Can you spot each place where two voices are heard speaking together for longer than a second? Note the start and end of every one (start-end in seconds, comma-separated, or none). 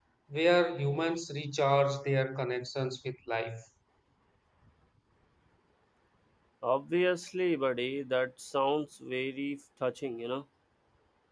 none